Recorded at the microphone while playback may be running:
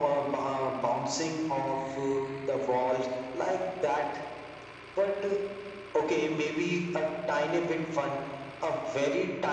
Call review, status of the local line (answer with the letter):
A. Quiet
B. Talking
A